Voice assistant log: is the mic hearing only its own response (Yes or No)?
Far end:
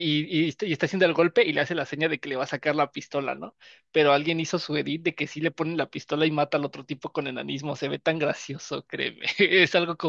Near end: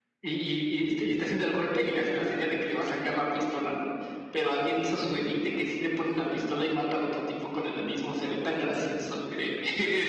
Yes